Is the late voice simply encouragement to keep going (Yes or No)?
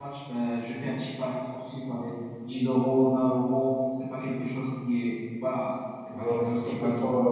No